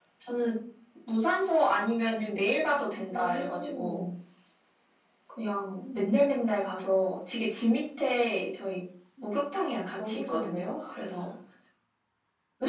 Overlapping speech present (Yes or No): Yes